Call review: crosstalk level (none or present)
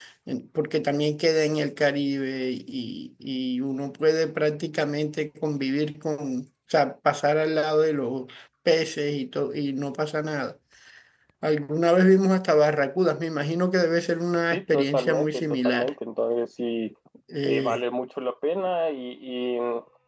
present